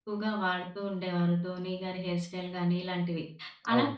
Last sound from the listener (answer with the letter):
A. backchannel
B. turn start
A